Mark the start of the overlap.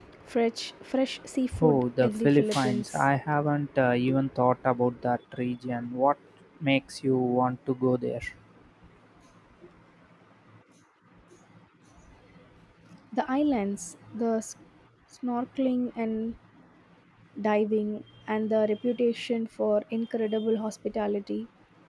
1.5 s

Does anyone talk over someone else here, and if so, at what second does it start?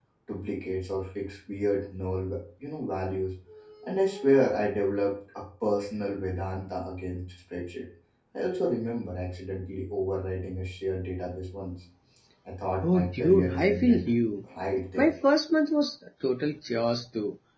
12.8 s

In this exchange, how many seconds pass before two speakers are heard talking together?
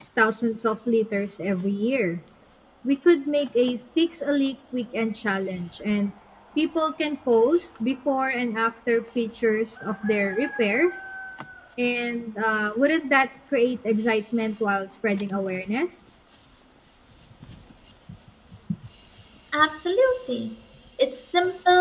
none

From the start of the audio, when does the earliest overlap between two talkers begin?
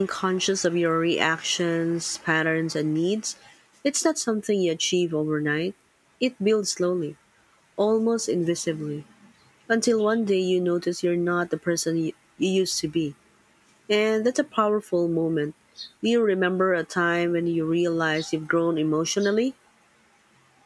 none

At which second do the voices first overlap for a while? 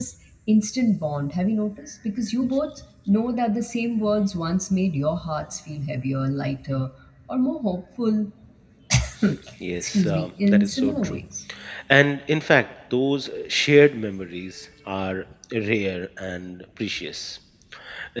9.8 s

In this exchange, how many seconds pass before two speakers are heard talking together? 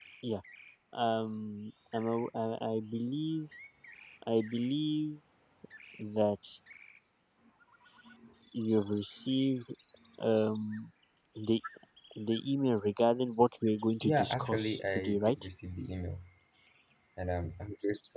14.0 s

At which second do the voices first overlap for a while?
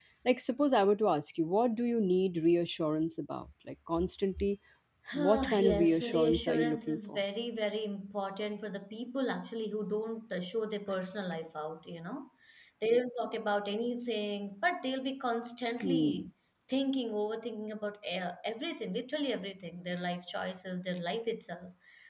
5.1 s

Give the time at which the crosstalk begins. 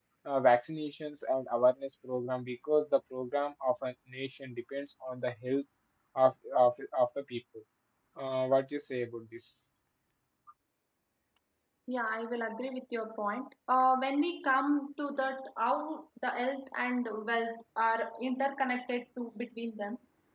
none

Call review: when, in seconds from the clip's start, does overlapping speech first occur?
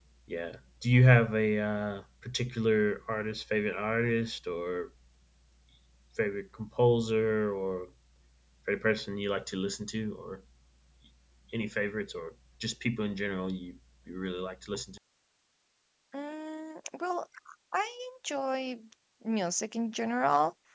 none

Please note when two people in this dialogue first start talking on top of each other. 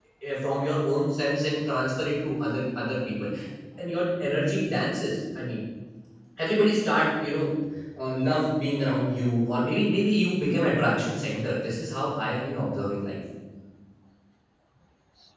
none

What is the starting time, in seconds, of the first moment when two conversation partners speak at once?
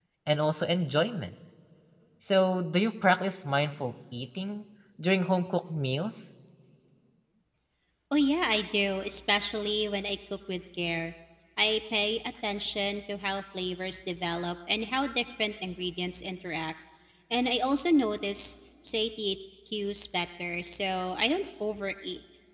none

